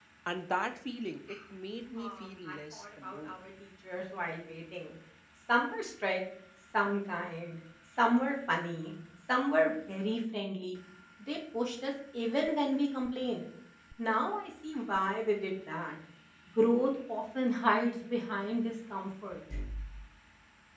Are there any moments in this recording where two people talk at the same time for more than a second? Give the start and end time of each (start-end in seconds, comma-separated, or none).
2.0-3.4